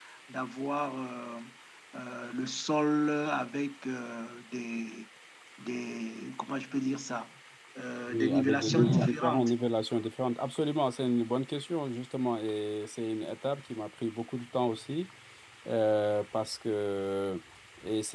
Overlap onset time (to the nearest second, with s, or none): 8 s